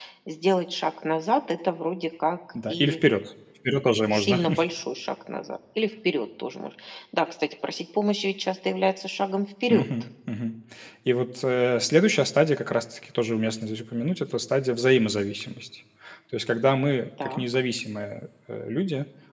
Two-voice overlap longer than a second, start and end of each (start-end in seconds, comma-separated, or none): none